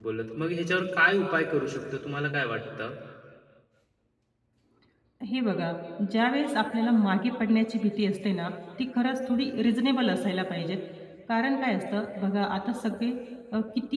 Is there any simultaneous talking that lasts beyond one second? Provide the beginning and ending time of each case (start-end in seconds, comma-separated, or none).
none